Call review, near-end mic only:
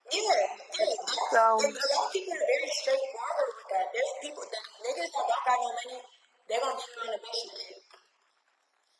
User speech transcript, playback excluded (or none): So